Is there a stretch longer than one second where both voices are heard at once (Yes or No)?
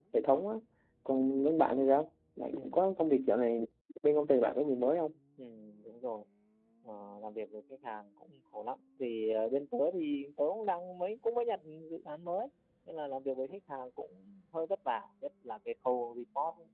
No